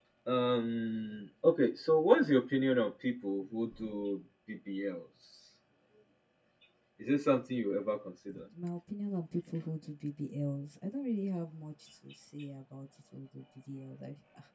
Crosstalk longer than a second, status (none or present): none